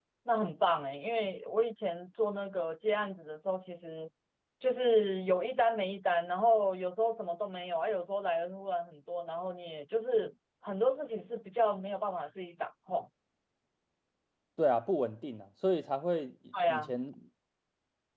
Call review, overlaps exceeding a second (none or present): none